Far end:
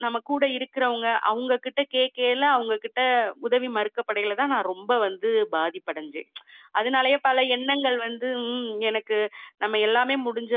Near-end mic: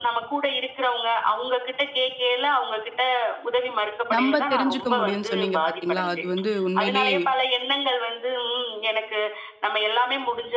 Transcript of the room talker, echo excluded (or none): நம்ப தெரிஞ்சுக்க முடியும்னு சொன்னீங்க பாத்தீங்களா? அது வந்து உண்மையிலேயே